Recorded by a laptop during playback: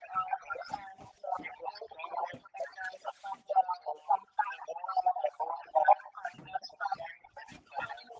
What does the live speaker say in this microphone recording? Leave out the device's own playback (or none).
none